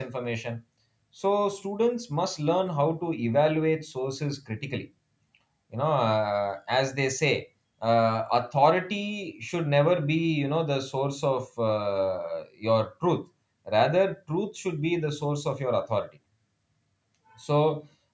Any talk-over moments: No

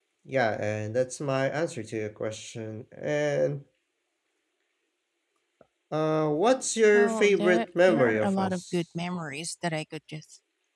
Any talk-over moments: Yes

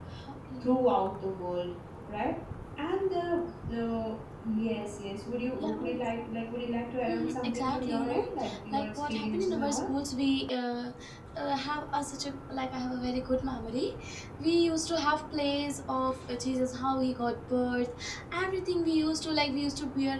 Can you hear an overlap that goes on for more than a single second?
Yes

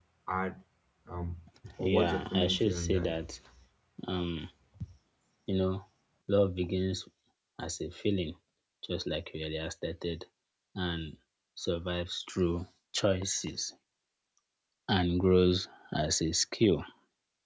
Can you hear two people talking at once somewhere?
Yes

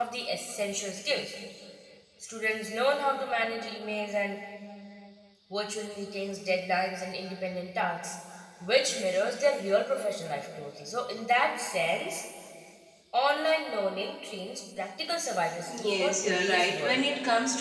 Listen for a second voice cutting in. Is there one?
Yes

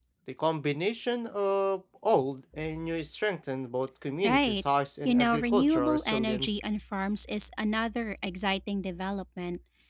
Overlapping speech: Yes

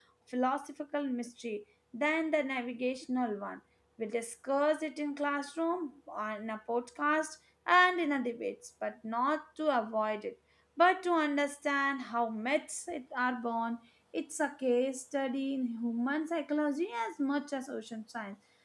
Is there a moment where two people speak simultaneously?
No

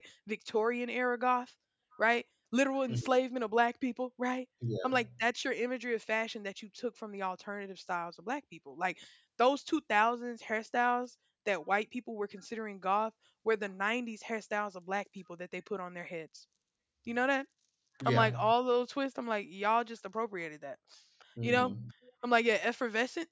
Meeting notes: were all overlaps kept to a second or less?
Yes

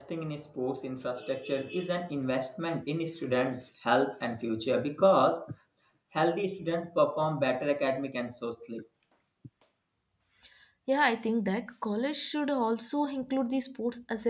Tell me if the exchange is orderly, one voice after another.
Yes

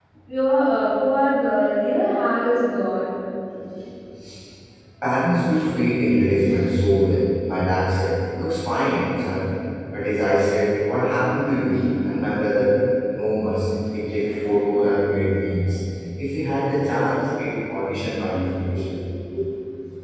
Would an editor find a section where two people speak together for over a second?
No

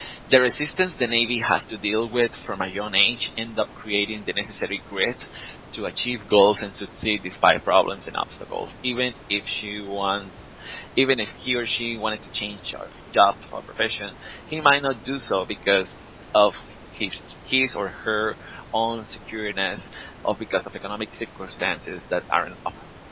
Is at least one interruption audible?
No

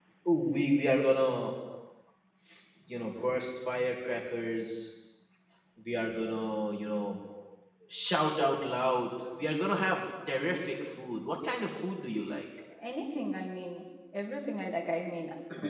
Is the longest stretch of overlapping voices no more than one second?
Yes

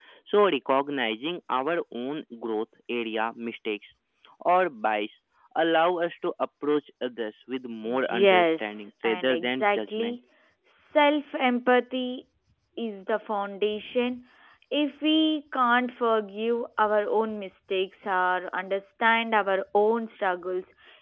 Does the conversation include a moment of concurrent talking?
Yes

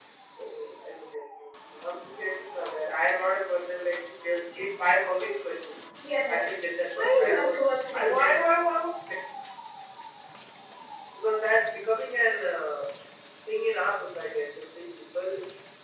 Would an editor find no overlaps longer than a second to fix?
No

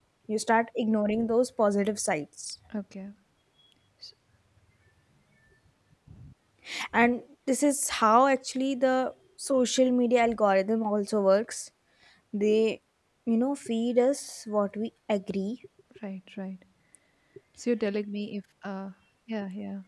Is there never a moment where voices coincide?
Yes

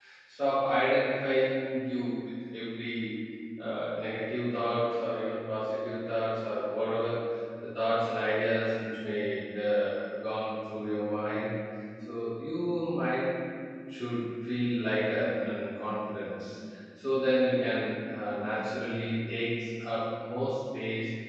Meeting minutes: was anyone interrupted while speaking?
No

